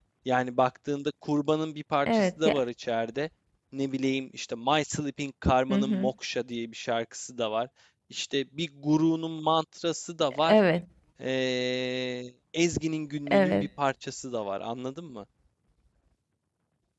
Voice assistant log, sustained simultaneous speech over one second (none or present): none